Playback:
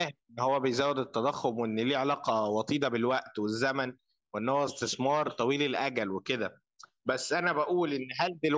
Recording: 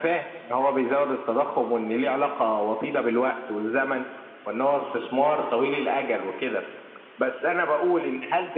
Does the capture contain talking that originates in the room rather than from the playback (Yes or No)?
No